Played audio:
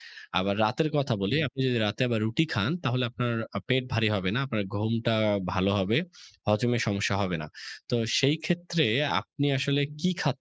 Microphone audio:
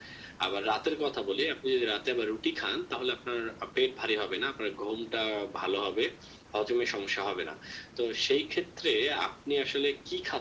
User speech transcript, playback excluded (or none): none